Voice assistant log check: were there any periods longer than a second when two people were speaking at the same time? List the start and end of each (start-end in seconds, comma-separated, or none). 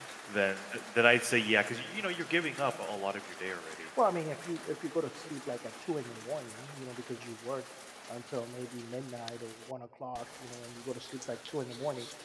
none